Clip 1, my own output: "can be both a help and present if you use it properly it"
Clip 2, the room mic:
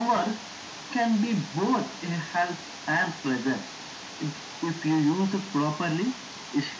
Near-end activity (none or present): none